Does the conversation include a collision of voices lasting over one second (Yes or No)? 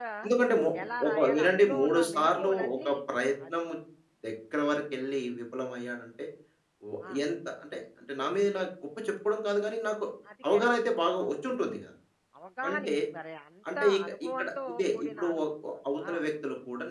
Yes